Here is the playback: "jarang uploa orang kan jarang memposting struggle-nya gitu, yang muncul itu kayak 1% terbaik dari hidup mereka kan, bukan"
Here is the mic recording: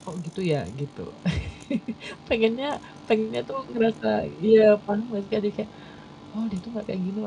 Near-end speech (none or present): present